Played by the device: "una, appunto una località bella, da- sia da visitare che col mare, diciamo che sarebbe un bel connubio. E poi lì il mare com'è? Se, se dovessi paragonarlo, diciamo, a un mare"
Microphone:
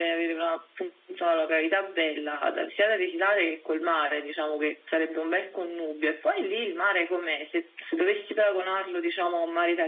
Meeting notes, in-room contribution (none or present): none